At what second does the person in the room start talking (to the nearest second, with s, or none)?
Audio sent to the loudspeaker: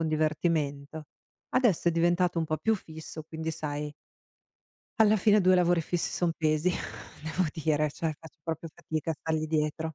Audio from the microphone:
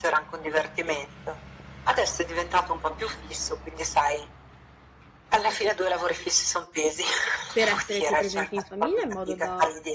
8 s